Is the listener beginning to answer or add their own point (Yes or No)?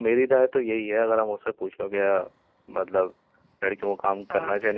No